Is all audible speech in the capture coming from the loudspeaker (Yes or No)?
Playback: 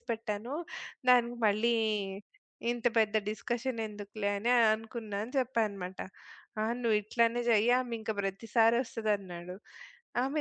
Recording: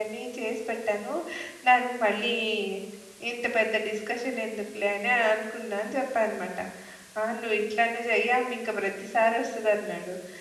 Yes